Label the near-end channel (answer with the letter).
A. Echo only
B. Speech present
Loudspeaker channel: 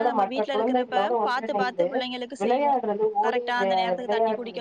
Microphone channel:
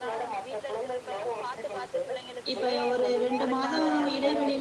B